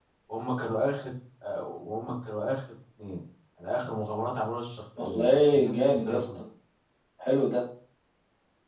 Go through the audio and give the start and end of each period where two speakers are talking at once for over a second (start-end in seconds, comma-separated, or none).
5.0-6.2